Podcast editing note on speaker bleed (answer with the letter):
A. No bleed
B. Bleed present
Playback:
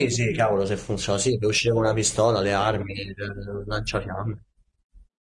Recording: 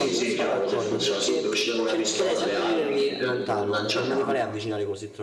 B